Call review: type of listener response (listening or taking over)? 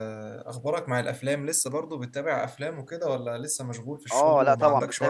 taking over